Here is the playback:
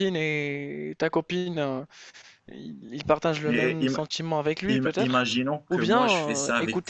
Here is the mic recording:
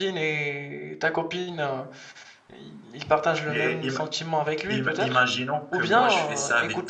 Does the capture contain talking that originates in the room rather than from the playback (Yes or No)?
No